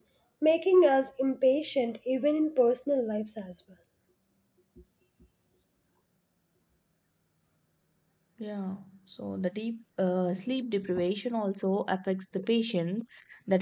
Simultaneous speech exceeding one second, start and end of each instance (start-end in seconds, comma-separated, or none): none